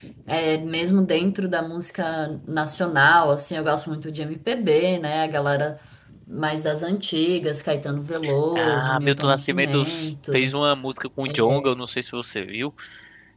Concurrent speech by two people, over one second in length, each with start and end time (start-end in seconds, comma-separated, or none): 8.6-9.8